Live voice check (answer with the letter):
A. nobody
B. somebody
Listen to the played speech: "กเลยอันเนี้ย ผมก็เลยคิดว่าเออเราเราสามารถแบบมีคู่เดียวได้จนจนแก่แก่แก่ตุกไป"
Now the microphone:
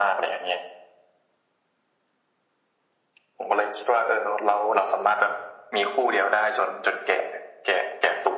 A